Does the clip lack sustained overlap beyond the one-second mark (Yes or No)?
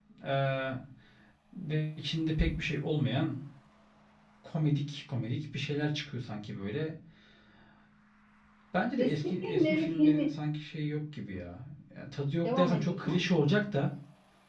No